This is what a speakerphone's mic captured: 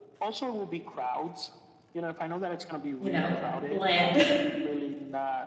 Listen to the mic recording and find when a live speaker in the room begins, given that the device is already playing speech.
3.0 s

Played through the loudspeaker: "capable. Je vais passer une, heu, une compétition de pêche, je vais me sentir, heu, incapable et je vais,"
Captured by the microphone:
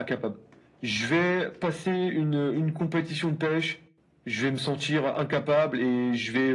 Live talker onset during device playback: none

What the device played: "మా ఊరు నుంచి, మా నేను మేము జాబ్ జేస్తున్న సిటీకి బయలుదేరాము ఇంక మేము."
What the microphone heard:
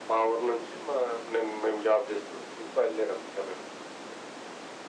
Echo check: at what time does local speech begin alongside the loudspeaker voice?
none

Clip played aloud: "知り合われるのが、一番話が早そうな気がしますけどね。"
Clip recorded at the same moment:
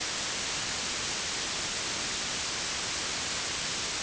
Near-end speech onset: none

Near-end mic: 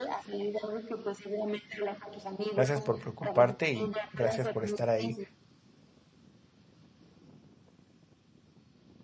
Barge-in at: 2.5 s

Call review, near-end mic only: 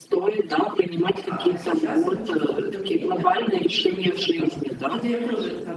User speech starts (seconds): 1.2 s

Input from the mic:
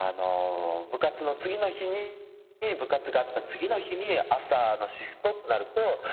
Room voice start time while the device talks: none

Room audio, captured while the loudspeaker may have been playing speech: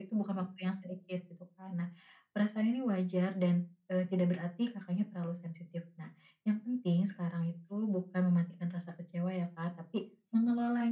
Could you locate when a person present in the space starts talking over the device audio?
none

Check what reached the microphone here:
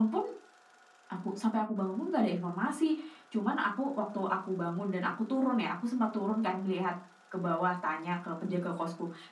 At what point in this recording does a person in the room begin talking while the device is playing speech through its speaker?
none

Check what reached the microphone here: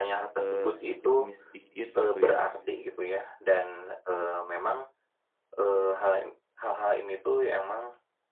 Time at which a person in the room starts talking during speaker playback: 0.4 s

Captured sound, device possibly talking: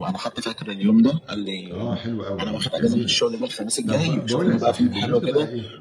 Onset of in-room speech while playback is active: 1.7 s

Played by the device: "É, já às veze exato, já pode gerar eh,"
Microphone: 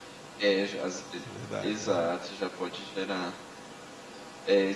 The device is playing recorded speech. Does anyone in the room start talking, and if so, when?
1.2 s

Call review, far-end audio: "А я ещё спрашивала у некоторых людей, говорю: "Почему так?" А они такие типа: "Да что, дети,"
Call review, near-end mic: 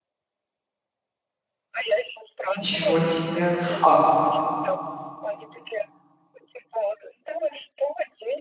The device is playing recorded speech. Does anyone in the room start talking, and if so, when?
2.6 s

